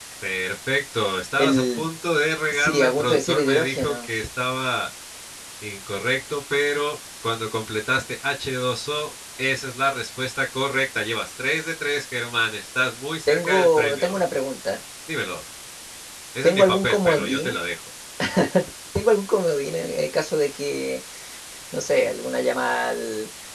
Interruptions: present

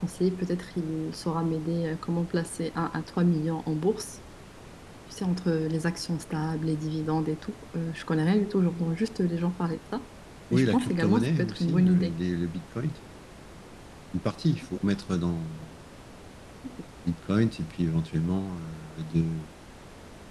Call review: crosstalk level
present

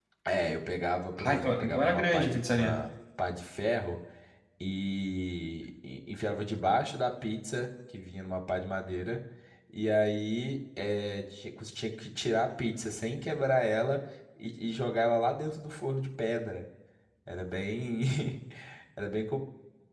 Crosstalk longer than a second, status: present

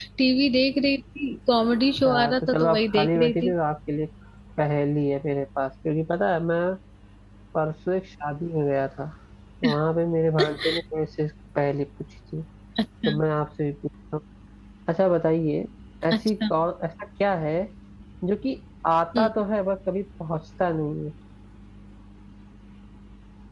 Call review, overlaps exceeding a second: present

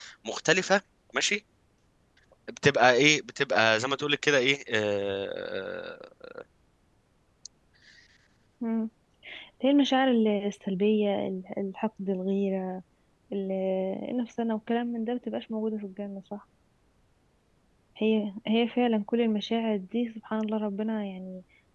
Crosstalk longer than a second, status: none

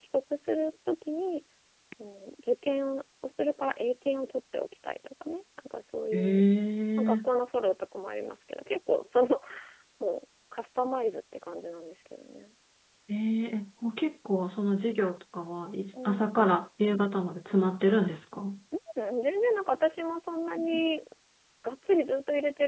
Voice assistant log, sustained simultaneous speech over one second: none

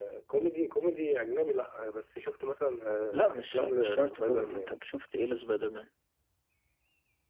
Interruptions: present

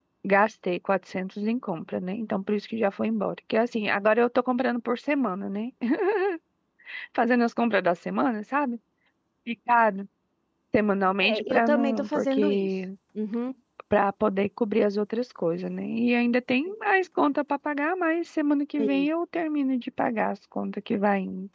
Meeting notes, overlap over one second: present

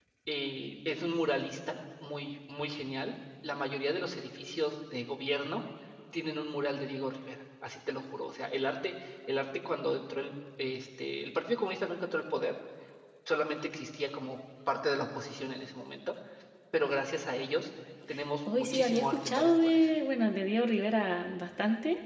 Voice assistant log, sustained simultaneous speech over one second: present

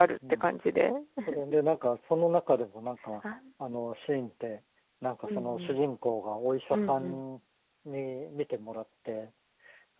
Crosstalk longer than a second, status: none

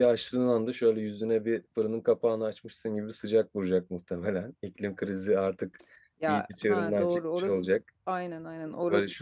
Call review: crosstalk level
present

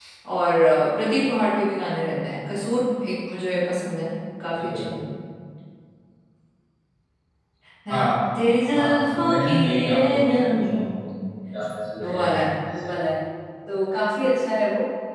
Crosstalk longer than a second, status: present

